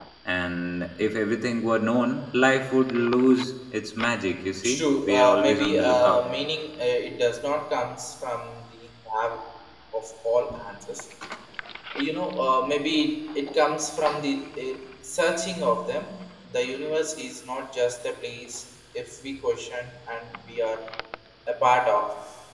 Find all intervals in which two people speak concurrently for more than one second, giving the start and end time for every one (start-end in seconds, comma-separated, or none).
4.6-6.2